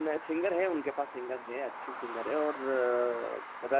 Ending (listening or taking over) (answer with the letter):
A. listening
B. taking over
A